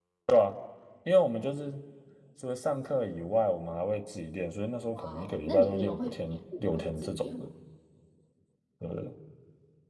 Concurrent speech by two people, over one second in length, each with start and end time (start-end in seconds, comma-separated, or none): 4.9-7.5